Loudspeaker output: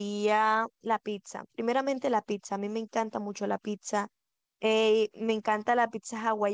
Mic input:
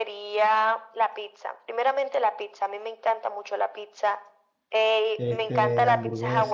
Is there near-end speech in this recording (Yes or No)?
Yes